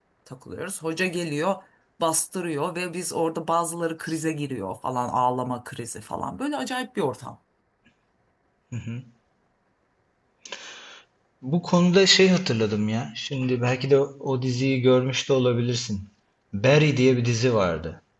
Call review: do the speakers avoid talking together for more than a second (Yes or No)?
Yes